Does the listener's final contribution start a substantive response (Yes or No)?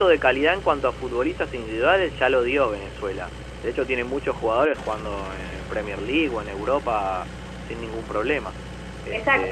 Yes